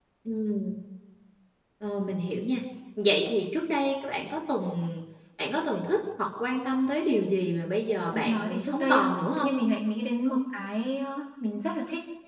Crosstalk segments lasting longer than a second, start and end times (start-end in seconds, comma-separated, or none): 8.1-9.5